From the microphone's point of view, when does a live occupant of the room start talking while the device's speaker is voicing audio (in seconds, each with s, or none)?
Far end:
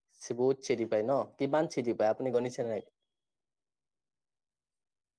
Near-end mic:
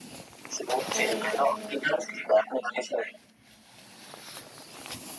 0.9 s